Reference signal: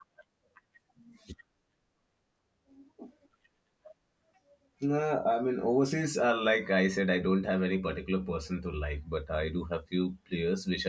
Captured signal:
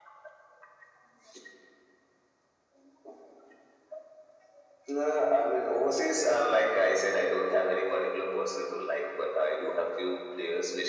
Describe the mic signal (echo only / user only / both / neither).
echo only